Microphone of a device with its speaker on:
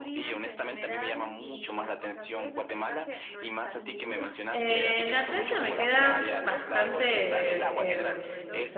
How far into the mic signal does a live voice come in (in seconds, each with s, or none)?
4.5 s